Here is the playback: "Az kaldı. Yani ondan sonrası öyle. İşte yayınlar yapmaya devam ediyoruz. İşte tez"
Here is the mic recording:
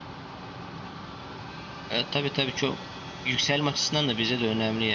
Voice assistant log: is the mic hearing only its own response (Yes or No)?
No